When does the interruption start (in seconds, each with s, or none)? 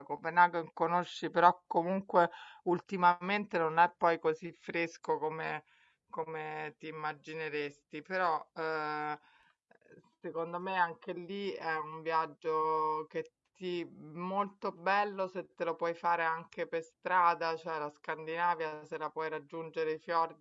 none